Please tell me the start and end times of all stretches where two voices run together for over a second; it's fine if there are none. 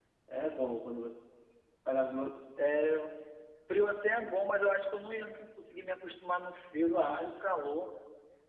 none

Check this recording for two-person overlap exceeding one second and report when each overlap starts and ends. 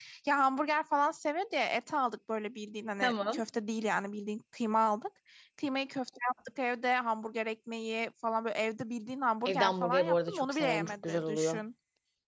9.5-11.6

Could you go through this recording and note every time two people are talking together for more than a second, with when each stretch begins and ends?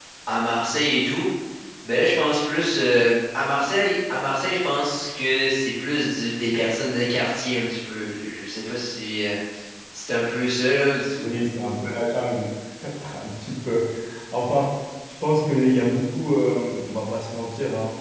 none

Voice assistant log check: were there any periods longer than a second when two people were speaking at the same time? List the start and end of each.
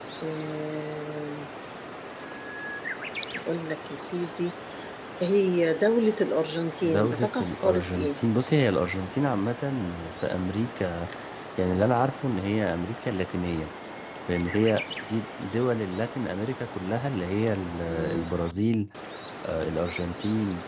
6.8-8.2

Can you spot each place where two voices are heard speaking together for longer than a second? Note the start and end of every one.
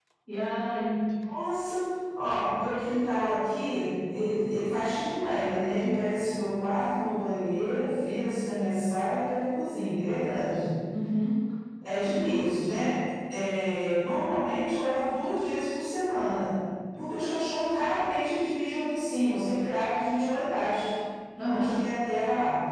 none

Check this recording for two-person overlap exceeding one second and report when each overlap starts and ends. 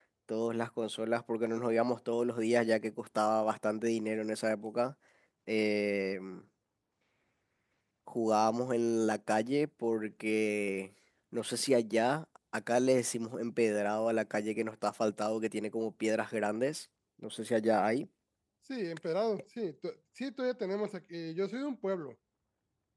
none

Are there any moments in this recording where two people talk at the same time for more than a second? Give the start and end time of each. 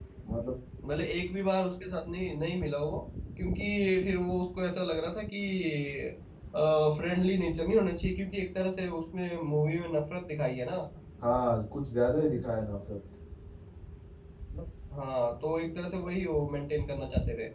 none

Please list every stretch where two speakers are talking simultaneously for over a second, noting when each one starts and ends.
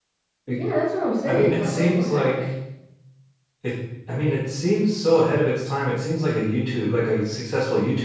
1.2-2.5

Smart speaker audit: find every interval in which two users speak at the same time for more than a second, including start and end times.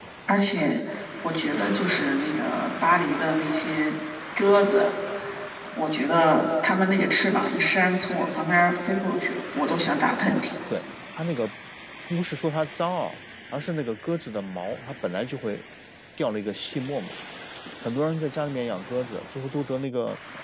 none

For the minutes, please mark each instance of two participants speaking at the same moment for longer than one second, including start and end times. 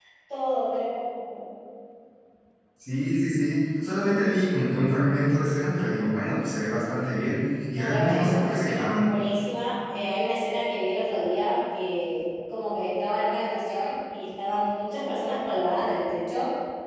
7.7-9.1

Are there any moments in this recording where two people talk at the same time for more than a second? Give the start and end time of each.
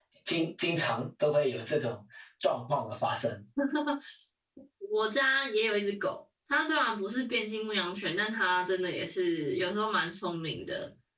none

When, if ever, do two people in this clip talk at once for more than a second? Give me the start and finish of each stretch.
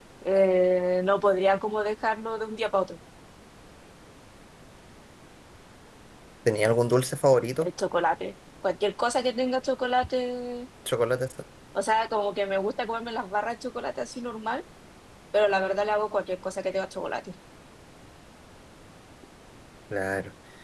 none

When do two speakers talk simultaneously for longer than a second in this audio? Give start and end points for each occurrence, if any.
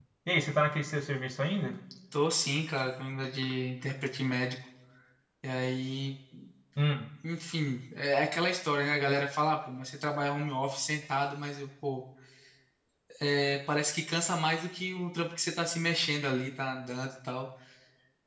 none

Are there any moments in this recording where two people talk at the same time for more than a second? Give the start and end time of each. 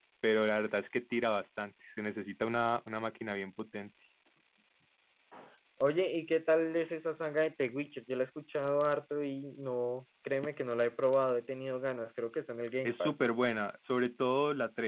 none

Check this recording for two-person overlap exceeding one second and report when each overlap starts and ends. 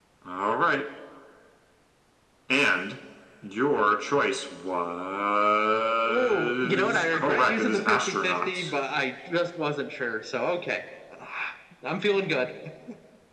6.0-8.7

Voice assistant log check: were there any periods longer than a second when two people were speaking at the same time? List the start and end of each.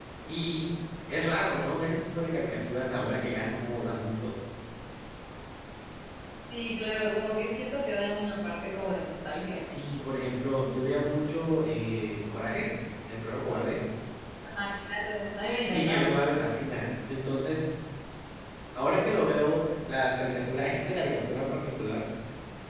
none

